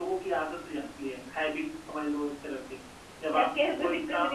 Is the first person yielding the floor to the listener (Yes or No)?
Yes